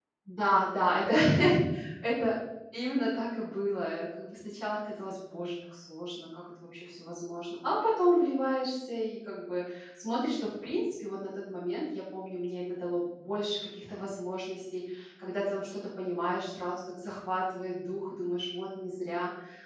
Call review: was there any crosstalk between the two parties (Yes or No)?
No